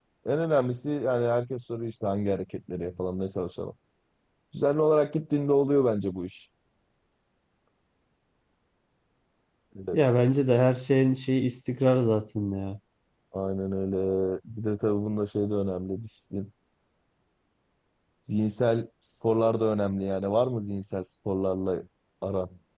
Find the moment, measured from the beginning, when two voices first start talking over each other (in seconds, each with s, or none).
none